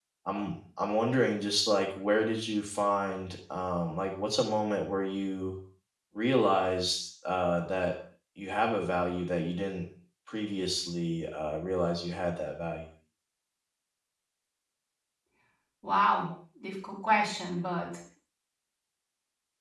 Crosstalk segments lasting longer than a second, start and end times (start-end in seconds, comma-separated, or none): none